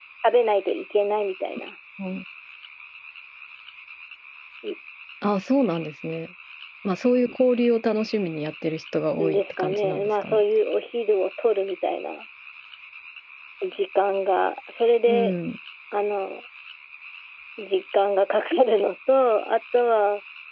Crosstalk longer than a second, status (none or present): present